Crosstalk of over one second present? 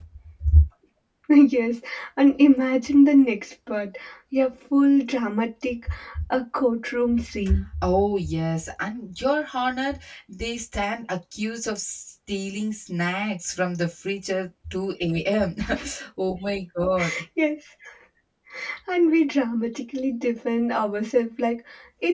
No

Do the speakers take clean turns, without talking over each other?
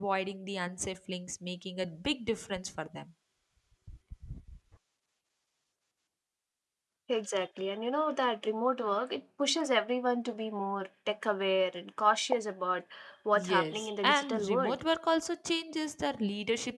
No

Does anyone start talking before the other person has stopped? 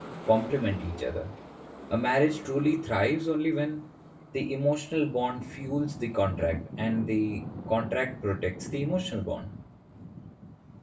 No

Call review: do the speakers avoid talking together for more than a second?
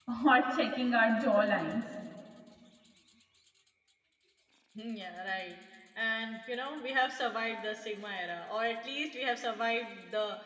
Yes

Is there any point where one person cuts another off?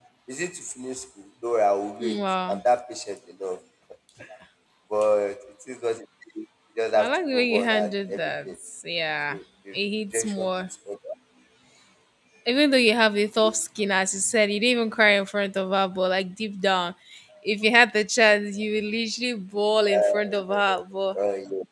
Yes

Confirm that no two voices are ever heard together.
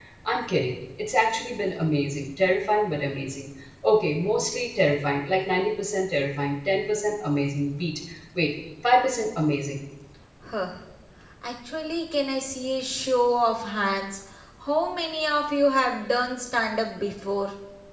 Yes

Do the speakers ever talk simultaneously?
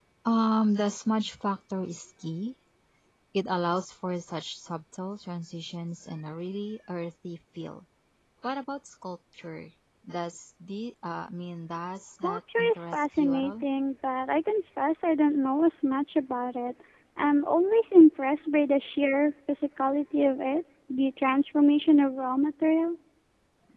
Yes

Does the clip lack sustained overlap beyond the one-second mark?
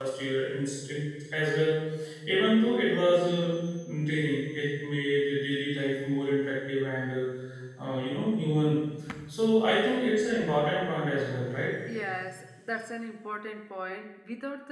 Yes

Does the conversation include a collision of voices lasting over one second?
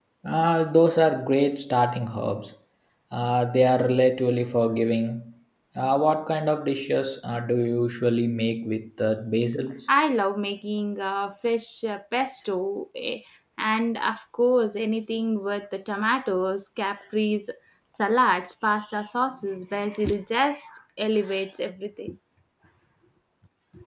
No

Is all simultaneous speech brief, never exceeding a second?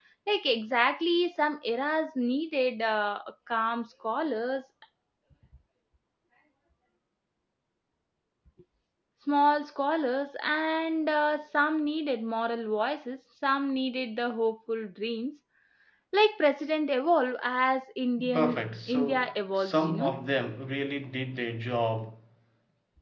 No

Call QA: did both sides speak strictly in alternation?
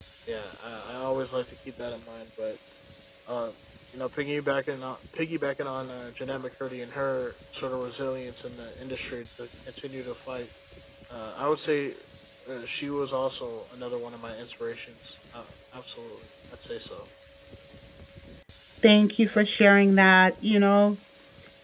Yes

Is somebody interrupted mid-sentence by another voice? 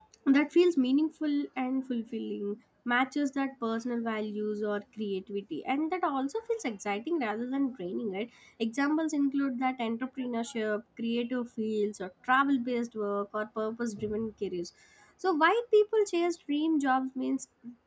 No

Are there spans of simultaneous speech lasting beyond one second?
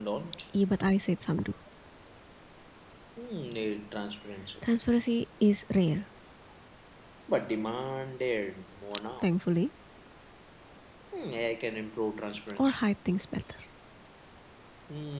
No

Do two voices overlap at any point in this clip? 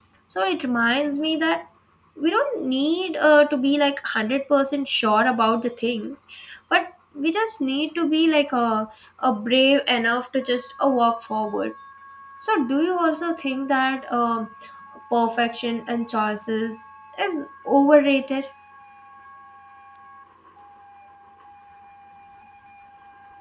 No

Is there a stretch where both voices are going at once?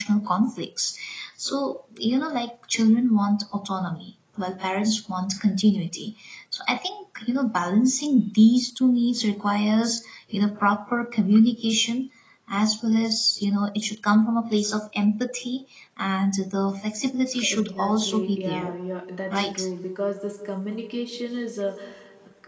Yes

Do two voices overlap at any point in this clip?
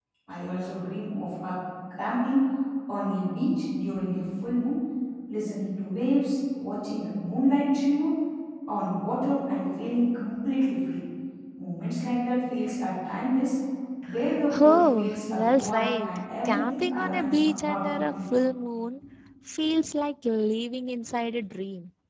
Yes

